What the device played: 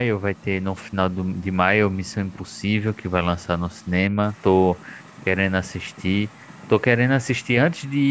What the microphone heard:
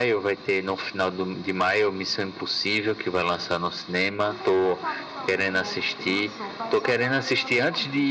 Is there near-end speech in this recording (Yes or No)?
Yes